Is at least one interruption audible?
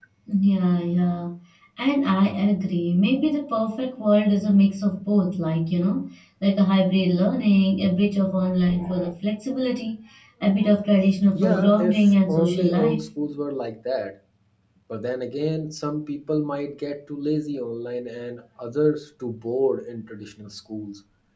Yes, from 11.3 s

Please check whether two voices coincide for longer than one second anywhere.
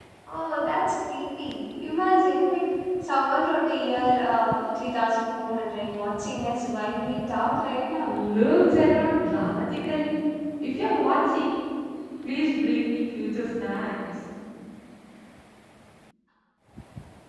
No

